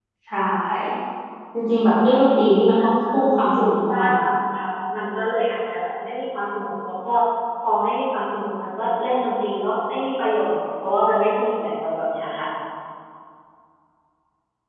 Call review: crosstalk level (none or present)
present